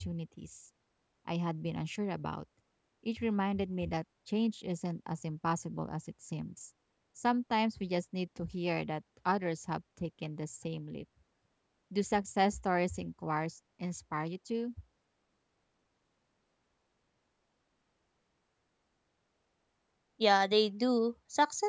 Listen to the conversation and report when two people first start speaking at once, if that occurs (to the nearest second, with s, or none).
none